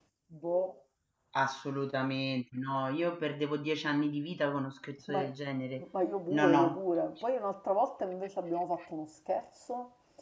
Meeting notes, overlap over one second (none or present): none